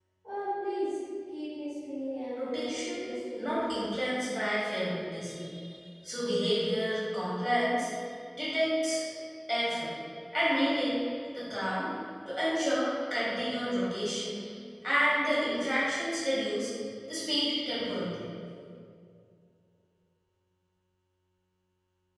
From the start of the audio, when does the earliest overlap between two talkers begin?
2 s

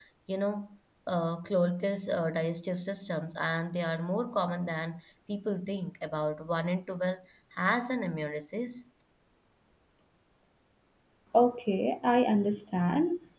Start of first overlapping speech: none

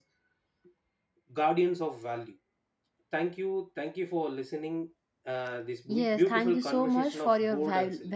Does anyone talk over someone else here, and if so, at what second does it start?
6 s

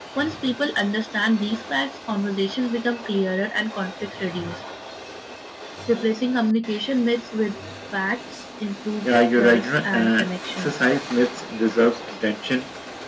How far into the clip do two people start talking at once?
9 s

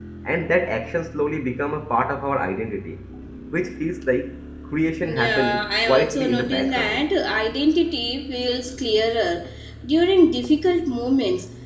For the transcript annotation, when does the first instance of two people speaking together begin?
5 s

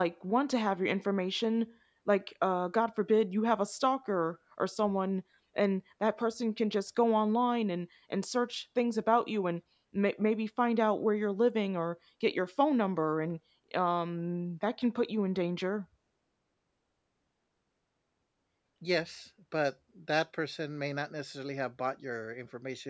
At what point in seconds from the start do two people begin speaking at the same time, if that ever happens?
none

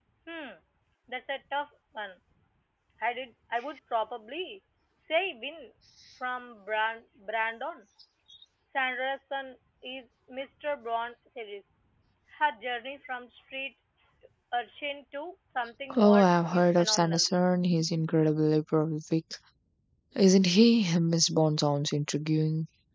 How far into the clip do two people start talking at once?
16 s

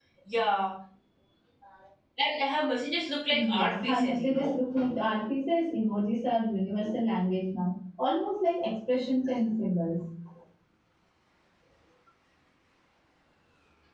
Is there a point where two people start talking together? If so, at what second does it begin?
3 s

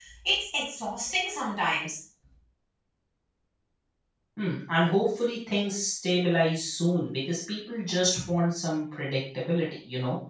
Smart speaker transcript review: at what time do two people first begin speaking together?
none

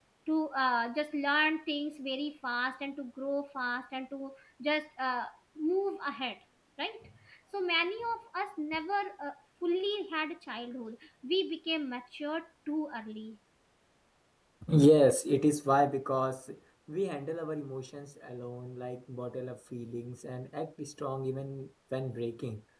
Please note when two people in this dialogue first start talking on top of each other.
none

